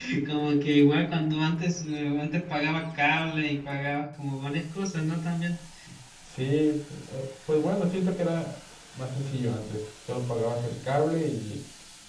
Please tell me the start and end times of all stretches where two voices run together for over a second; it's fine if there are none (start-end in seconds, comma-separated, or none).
none